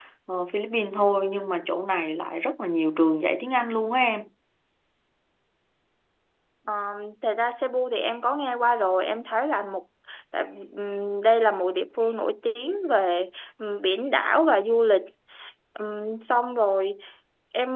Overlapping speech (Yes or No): No